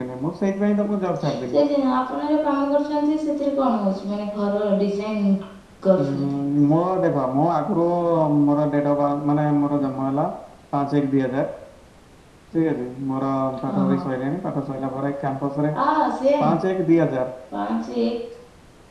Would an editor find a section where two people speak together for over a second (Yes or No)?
No